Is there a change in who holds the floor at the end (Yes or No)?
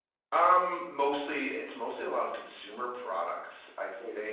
No